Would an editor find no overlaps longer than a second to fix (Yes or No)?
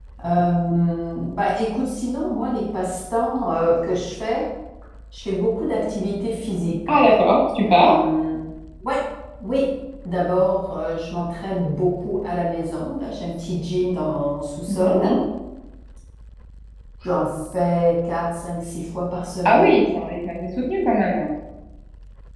Yes